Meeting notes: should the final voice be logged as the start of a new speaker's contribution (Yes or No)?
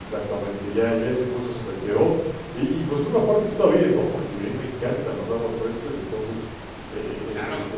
No